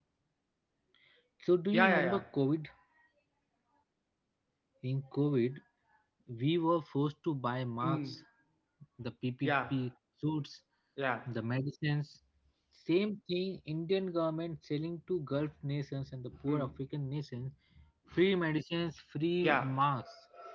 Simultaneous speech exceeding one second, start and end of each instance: none

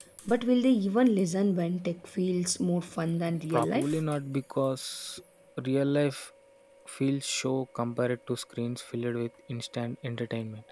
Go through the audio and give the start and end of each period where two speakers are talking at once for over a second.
none

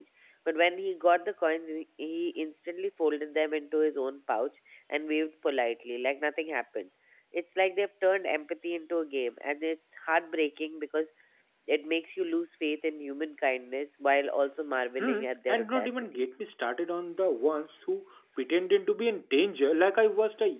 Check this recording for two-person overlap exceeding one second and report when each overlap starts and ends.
15.0-16.2

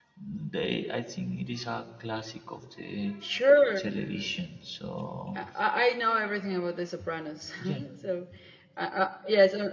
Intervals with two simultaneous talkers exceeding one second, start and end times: none

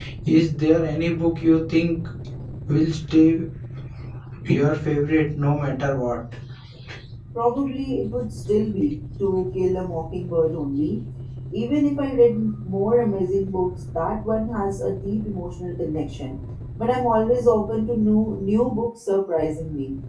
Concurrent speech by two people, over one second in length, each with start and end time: none

